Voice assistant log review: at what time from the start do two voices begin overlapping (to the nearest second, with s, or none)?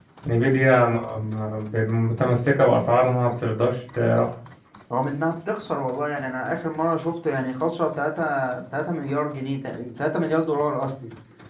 none